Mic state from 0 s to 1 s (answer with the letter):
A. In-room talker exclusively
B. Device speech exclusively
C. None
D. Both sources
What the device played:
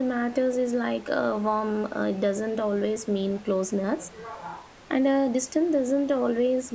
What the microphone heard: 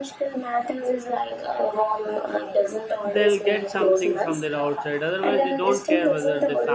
B